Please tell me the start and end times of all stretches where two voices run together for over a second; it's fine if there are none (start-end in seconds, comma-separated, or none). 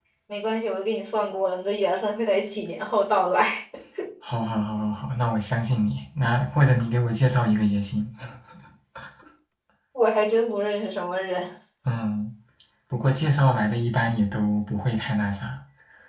none